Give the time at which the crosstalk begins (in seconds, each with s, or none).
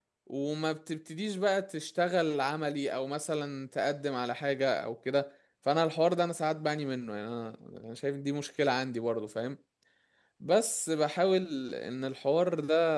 none